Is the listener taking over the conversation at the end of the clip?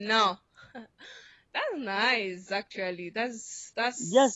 Yes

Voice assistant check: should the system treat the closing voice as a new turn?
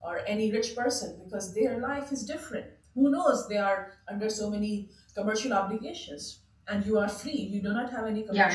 No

